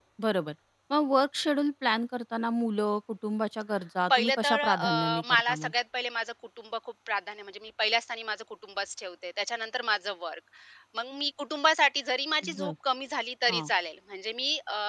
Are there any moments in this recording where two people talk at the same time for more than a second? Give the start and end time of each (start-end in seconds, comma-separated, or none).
4.1-5.7